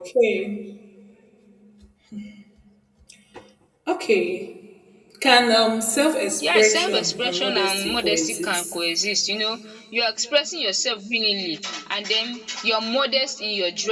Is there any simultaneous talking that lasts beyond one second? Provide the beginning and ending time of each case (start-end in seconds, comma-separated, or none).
6.4-8.7